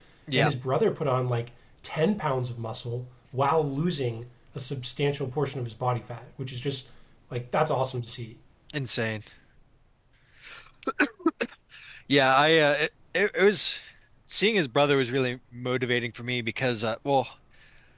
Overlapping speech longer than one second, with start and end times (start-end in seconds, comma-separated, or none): none